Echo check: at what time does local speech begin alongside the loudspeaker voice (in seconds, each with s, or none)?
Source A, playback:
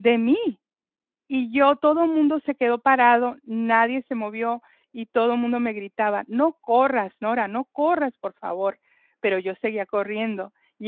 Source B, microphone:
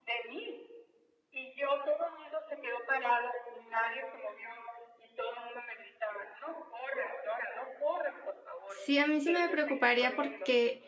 8.7 s